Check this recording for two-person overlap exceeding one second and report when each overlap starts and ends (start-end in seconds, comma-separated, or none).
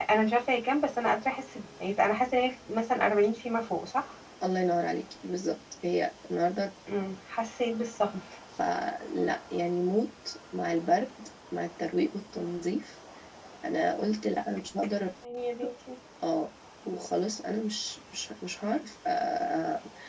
none